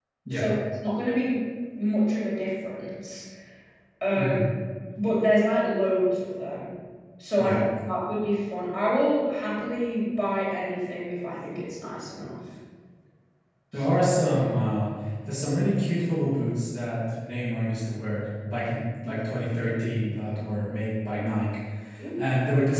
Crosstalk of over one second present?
No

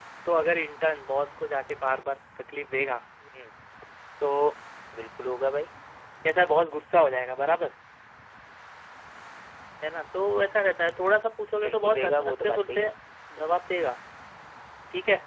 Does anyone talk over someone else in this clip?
Yes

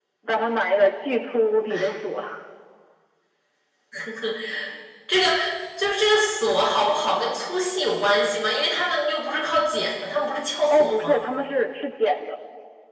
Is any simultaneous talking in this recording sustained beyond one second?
No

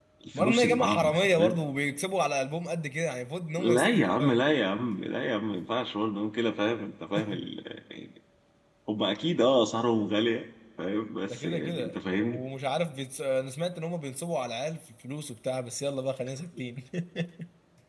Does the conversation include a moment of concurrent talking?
Yes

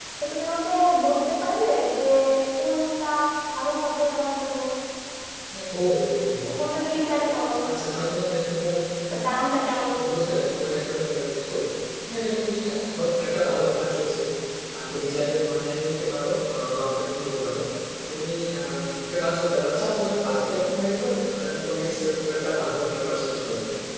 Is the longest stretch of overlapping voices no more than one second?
Yes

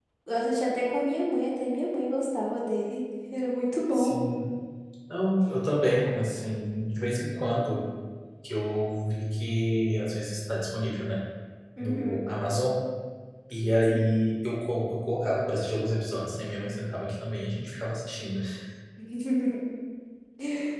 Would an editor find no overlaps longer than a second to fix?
Yes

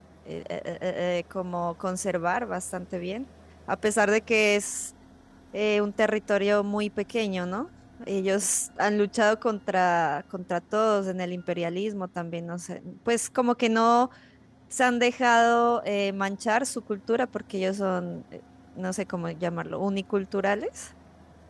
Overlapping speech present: No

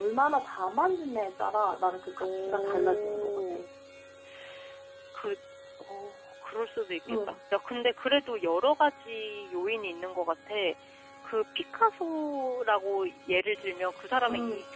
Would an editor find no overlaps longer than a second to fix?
No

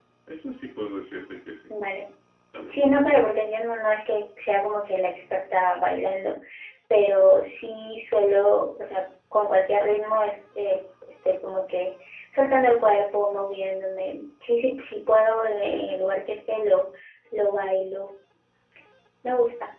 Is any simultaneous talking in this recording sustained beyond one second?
No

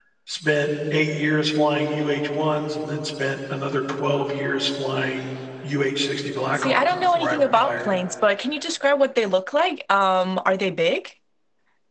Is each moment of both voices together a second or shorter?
No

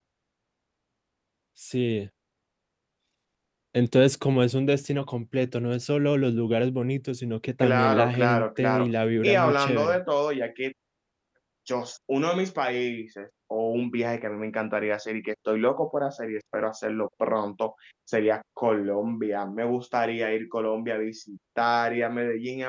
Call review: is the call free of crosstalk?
No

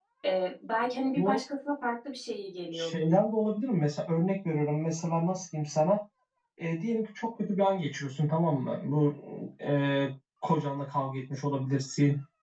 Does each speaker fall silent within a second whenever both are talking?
Yes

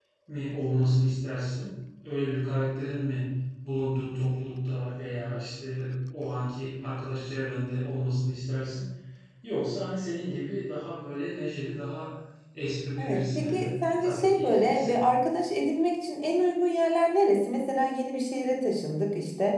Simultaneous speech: Yes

